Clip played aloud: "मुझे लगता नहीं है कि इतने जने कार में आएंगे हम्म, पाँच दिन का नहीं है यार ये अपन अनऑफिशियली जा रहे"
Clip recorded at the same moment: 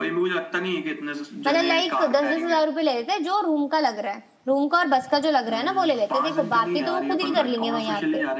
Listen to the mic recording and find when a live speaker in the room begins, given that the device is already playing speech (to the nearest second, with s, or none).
1 s